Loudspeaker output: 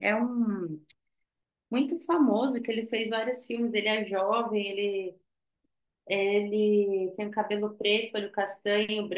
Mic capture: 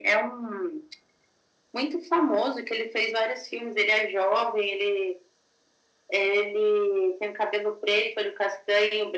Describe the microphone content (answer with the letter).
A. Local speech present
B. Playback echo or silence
B